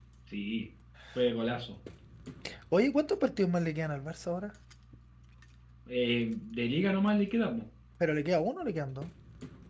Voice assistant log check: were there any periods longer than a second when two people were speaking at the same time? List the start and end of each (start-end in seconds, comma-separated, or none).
none